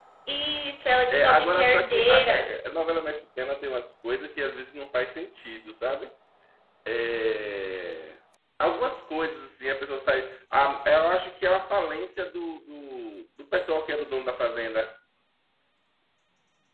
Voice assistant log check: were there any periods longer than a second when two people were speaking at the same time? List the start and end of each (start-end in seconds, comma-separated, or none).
1.1-2.5